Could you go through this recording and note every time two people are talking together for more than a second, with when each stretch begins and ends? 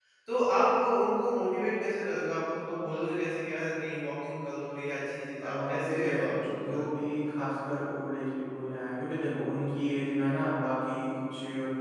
5.4-7.3

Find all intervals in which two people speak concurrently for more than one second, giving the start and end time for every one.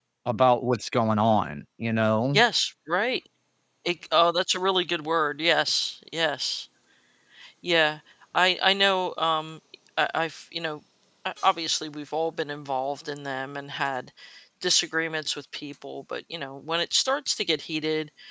none

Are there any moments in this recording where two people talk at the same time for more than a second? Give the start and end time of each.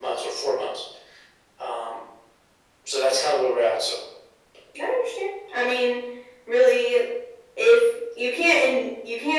none

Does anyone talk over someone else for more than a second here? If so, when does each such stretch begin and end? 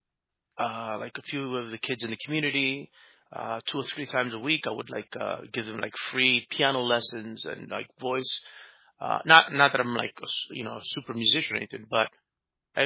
none

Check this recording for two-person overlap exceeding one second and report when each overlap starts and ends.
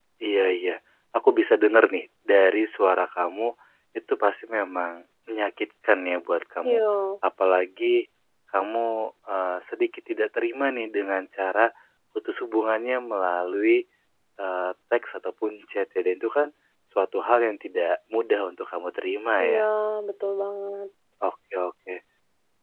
none

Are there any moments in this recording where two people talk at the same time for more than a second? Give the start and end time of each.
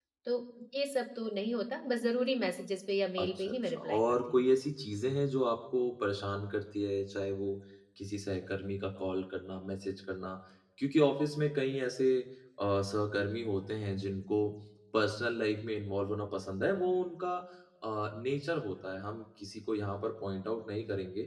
3.2-4.5

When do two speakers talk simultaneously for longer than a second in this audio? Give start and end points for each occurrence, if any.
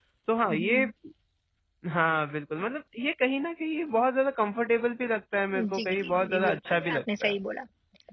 5.7-7.3

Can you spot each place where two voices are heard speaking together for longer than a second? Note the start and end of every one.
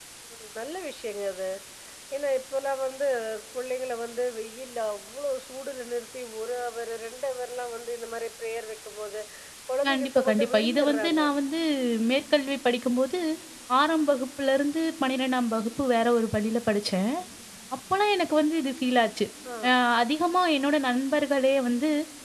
9.9-11.2

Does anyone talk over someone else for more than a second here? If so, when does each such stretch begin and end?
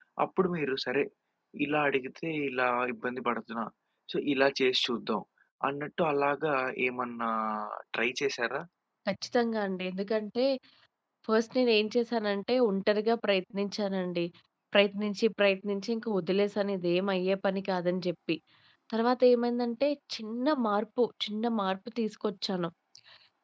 none

